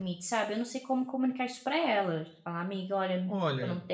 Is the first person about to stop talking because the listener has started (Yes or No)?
Yes